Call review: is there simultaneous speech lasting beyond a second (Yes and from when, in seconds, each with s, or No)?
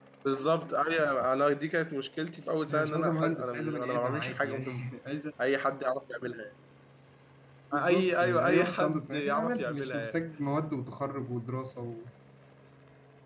Yes, from 2.7 s